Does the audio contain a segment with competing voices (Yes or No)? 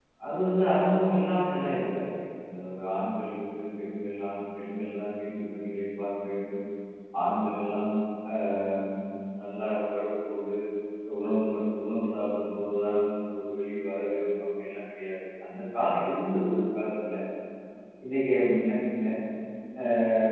No